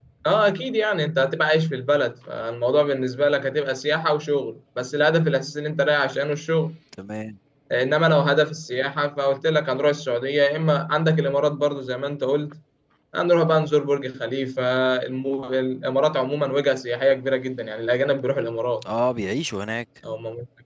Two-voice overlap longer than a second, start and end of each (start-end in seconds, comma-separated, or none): none